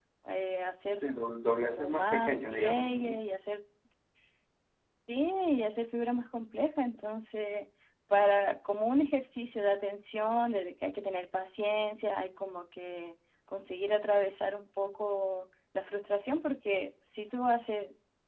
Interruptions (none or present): present